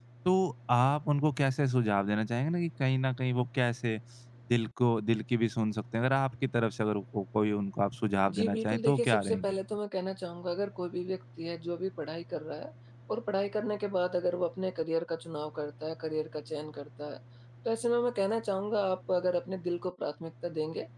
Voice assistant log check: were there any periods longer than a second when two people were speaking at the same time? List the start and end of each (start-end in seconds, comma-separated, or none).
8.3-9.6